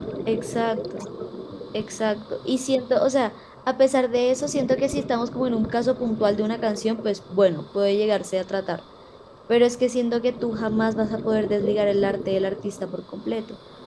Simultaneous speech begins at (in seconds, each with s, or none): none